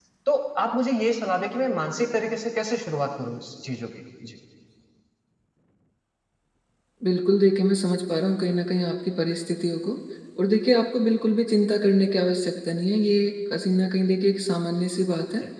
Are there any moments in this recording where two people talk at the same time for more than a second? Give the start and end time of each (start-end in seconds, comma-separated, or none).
none